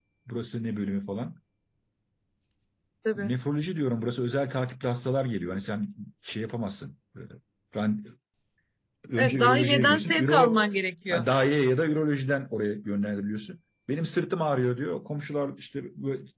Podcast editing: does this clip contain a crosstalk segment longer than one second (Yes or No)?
Yes